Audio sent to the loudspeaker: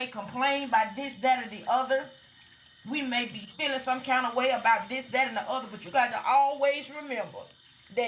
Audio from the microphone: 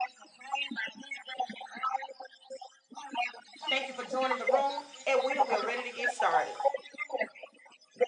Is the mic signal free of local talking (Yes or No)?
No